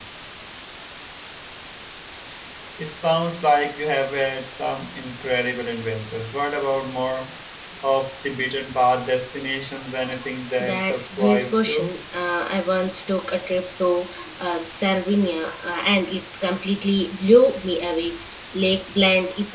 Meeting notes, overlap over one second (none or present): present